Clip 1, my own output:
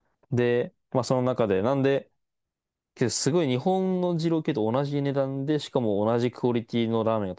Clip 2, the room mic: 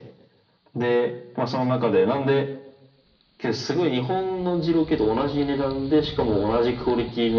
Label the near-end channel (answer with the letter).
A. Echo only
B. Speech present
A